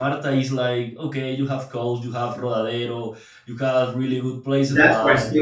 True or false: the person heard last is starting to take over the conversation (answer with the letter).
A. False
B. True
B